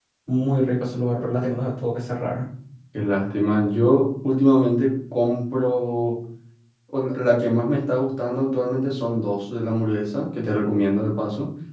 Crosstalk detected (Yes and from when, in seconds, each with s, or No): No